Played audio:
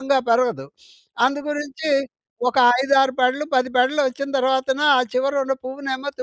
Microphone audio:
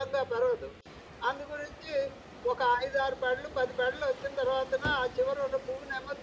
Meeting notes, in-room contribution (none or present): none